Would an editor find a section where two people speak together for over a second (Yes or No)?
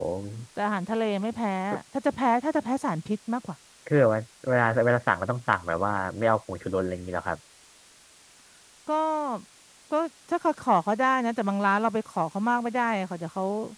No